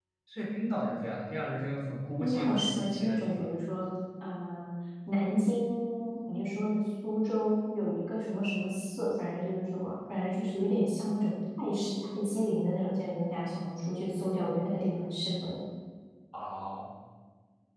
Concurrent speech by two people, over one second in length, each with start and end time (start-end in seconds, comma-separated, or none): 2.2-3.5